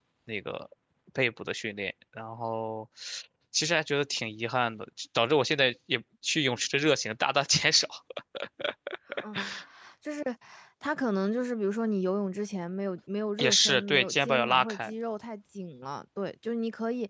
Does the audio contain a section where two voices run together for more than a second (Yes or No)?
Yes